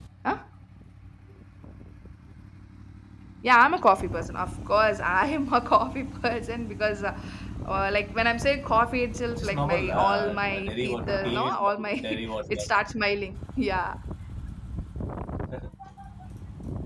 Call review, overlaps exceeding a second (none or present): present